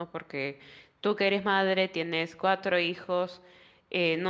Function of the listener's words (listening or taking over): listening